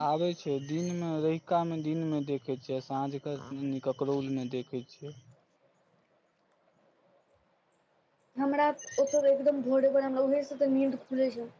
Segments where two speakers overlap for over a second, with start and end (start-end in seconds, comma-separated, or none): none